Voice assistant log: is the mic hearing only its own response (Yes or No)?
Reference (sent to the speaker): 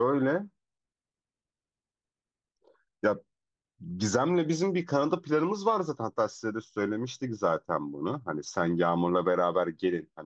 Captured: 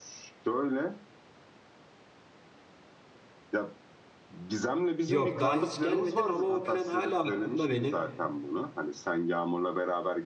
No